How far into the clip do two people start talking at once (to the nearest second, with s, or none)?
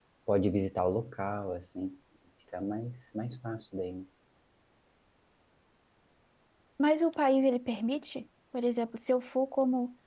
none